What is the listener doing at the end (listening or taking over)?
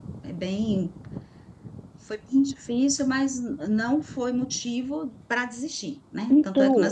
taking over